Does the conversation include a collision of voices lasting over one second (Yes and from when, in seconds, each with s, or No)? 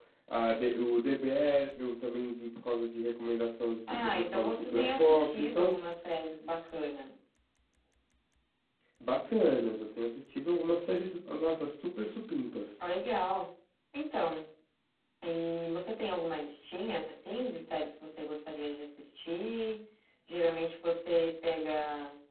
Yes, from 3.9 s